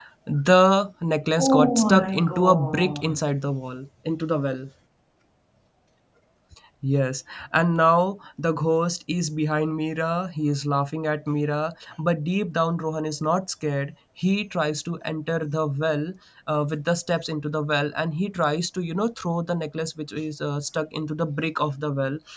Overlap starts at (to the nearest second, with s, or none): 1 s